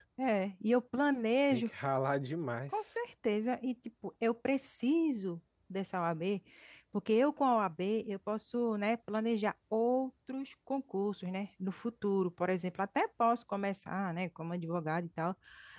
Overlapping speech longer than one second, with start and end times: none

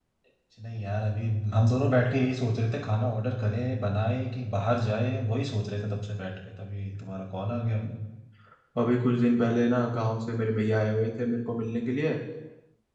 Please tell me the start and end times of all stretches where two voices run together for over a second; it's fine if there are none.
none

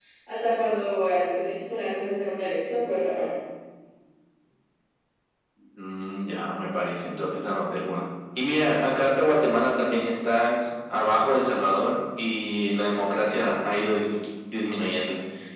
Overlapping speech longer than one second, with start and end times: none

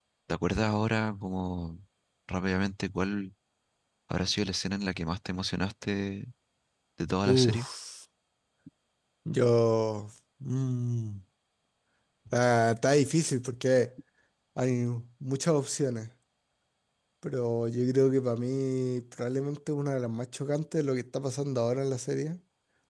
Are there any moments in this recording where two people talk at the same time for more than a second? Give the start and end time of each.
none

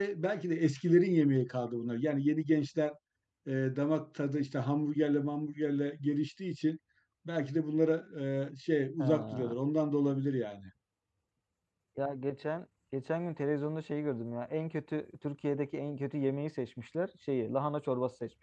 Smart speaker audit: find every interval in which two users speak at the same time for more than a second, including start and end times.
none

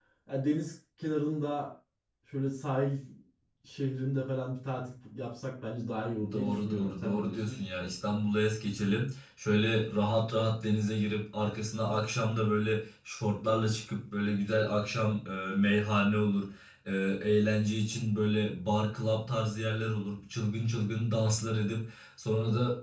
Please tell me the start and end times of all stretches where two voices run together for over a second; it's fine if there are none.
6.3-7.6

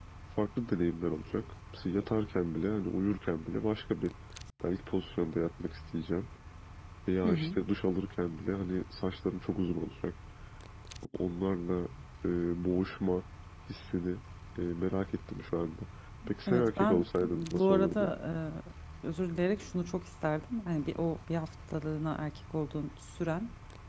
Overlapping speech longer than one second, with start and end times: 16.5-18.1

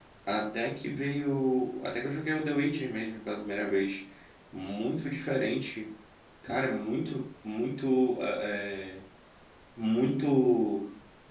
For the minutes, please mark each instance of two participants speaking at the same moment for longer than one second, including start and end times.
none

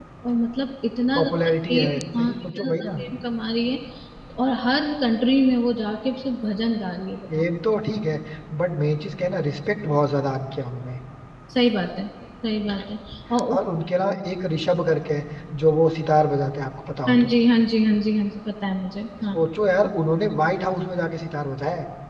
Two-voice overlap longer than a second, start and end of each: 1.2-3.0

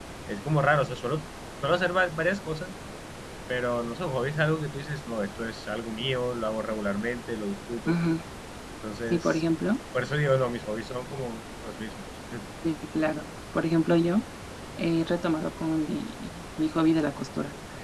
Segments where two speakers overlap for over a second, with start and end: none

